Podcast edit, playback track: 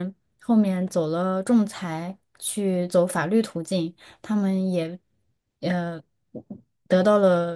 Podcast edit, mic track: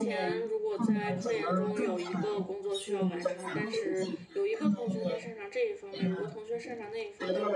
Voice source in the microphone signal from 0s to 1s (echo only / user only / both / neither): both